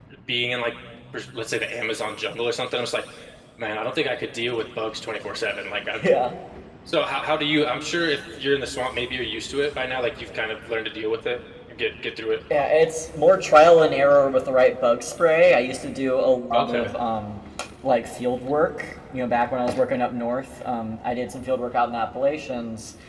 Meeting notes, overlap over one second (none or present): none